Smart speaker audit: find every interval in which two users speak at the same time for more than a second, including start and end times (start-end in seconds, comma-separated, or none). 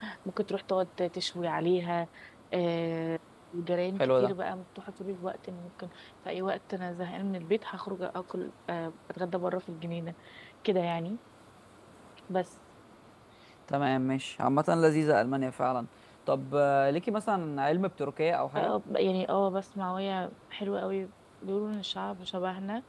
none